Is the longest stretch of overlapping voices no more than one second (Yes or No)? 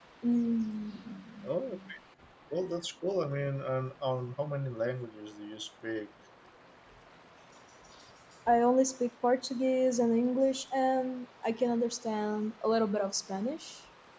Yes